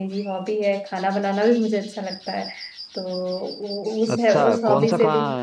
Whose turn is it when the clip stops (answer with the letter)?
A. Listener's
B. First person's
A